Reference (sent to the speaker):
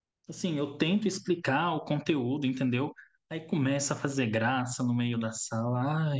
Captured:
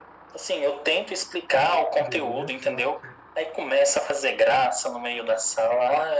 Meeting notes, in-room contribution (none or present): present